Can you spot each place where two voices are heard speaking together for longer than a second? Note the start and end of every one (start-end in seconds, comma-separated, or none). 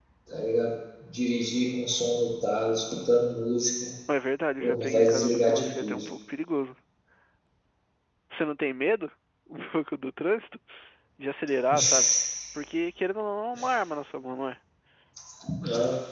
4.6-6.0